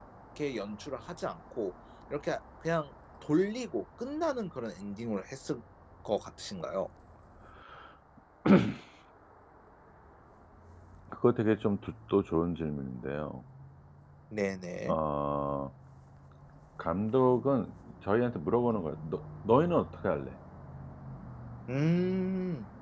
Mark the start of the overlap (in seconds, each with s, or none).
none